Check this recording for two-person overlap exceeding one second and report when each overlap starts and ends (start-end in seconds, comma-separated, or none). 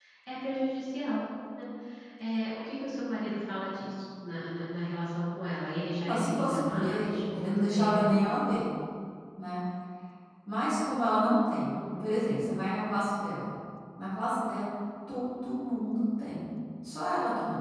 6.0-8.1